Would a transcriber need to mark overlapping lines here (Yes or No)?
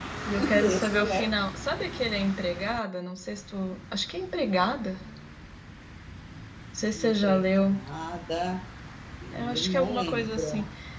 Yes